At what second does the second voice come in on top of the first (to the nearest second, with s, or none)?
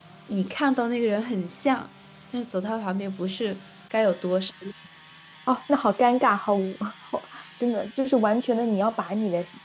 none